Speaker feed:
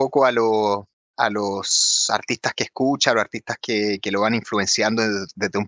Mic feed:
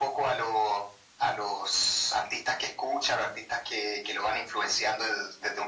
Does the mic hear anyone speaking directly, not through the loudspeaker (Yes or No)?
No